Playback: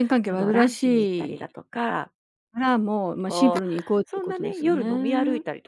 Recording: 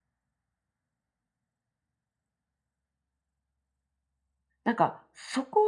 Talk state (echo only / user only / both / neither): user only